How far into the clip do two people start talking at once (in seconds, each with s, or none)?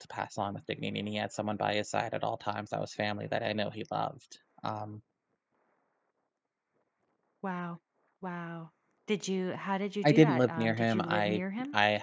10.0 s